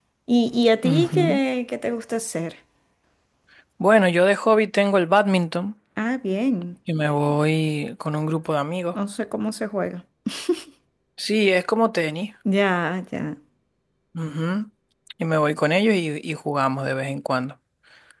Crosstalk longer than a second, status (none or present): none